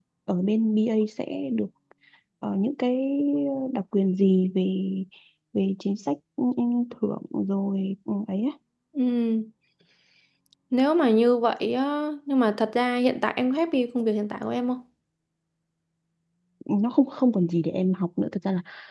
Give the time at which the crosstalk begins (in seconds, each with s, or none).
none